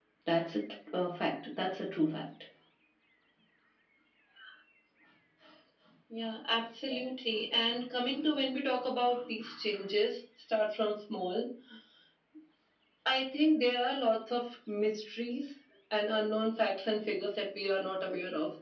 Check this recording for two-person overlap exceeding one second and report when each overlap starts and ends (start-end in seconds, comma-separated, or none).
none